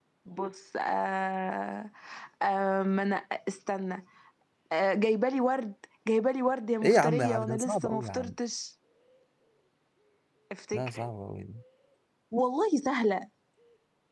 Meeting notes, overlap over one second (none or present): present